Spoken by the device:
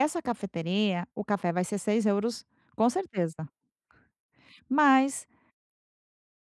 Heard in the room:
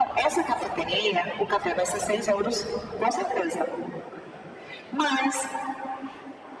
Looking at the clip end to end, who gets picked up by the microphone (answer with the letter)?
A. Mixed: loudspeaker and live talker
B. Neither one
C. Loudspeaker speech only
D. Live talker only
C